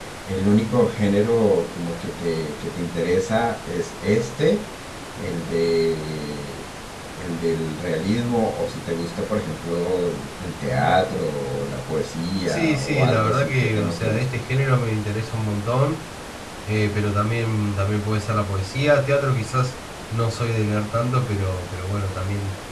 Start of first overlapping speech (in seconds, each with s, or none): 12.5 s